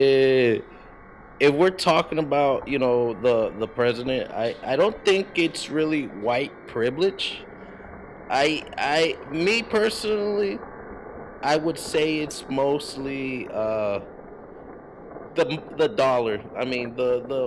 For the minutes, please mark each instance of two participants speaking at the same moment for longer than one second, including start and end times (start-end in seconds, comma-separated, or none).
none